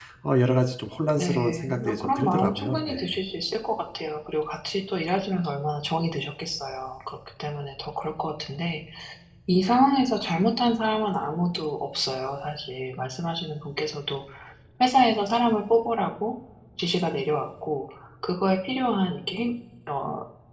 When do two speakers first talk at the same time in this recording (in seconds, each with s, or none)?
1.1 s